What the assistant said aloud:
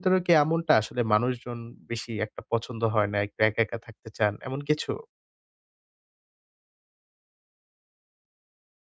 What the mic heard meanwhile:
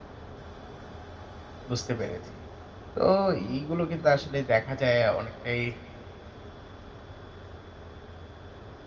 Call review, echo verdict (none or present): none